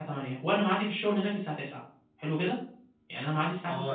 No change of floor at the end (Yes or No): No